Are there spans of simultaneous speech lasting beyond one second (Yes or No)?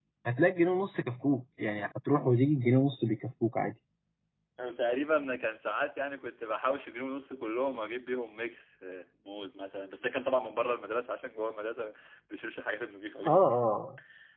No